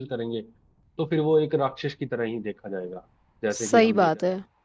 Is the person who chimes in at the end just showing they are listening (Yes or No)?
No